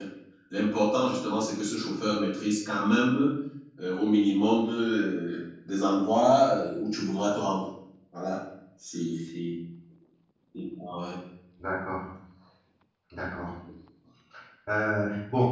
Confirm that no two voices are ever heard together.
Yes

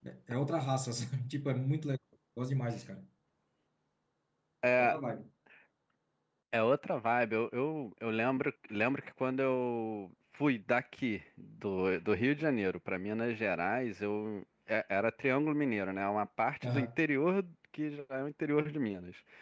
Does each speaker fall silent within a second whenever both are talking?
Yes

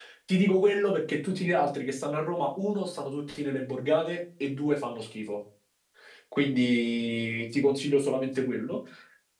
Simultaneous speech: No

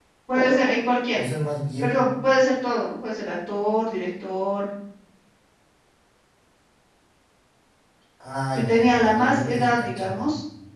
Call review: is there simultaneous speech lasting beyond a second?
Yes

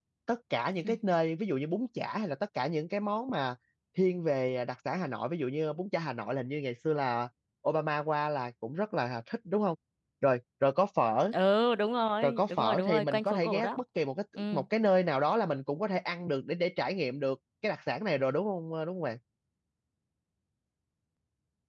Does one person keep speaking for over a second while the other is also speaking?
Yes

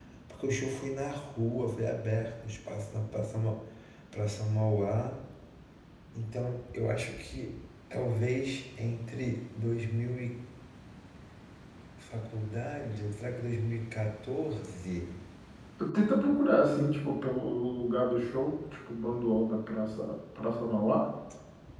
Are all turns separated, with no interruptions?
Yes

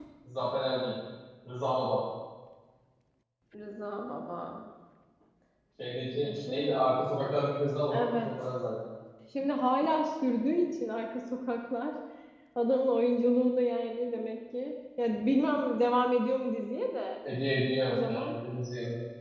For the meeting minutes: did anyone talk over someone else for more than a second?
No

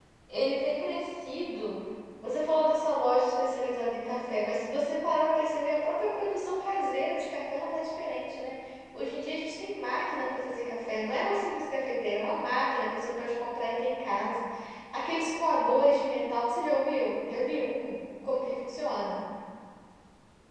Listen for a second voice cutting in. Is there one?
No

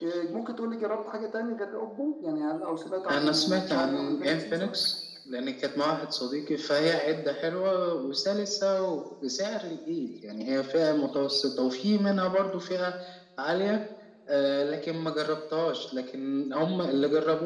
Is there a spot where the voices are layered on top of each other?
Yes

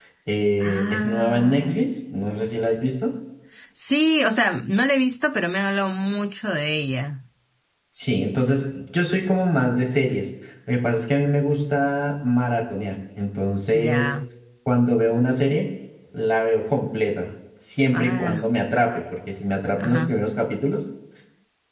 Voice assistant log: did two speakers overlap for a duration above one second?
Yes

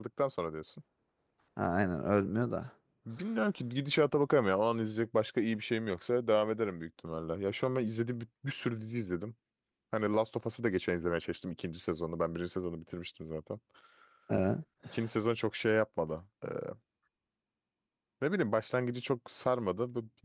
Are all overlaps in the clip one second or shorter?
Yes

